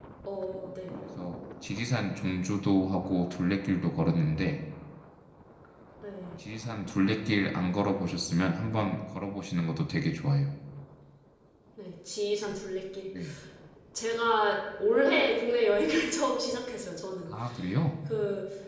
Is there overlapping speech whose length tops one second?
No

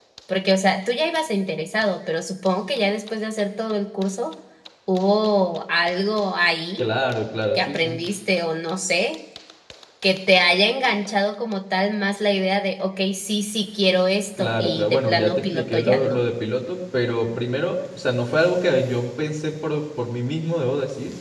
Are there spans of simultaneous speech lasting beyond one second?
Yes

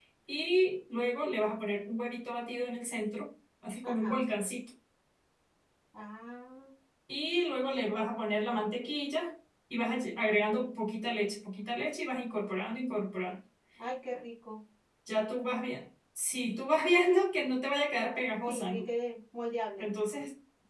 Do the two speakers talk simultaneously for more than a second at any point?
No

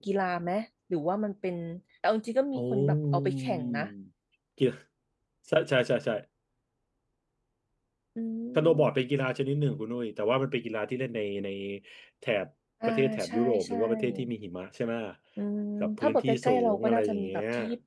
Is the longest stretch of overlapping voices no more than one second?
No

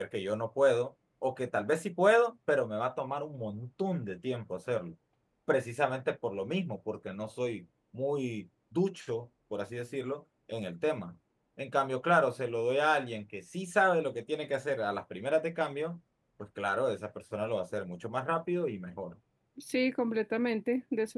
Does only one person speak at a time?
Yes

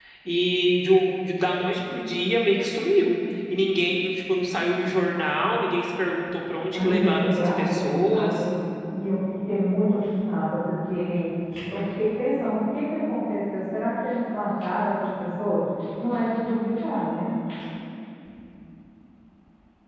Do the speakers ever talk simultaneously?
Yes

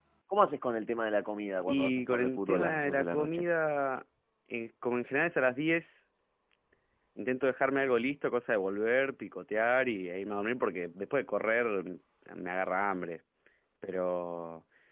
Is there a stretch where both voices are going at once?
Yes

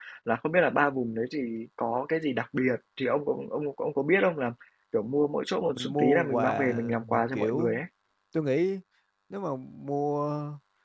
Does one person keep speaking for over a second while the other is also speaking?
Yes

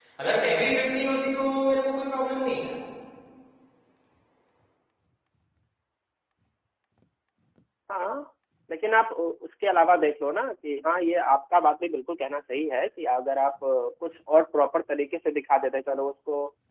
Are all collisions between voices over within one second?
Yes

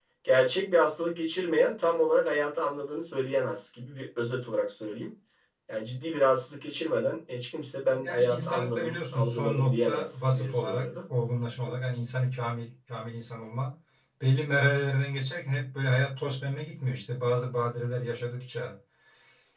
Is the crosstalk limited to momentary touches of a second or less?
No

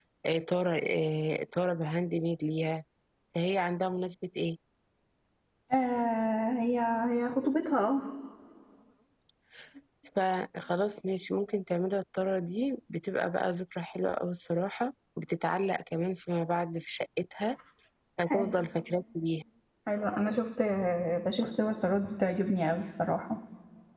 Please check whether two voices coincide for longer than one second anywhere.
No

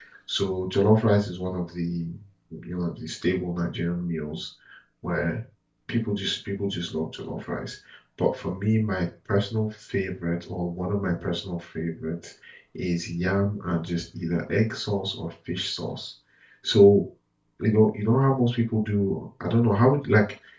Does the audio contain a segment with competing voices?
No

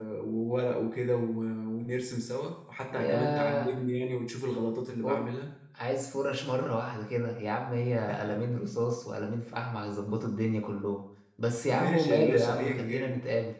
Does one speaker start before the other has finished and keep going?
Yes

